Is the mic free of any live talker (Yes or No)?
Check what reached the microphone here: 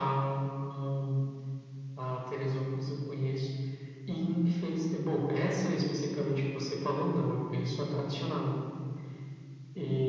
Yes